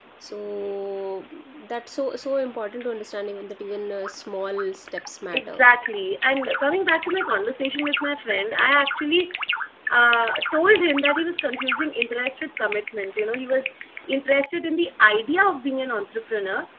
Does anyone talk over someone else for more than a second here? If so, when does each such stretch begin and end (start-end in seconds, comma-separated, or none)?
none